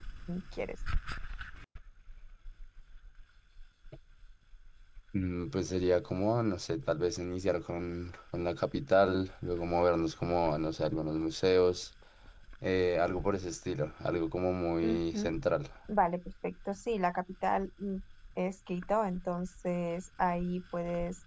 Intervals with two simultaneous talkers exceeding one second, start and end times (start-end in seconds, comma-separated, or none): none